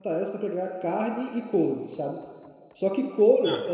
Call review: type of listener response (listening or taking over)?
listening